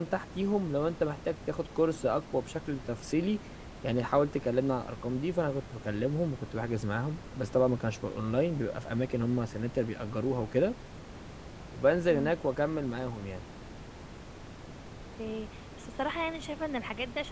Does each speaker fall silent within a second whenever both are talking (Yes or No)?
Yes